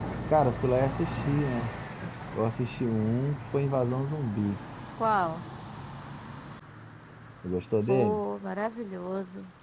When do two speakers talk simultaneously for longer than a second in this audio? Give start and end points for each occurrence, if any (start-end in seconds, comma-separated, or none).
none